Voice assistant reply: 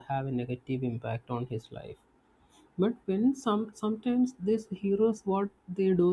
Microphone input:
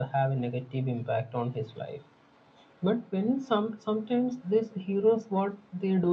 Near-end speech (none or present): none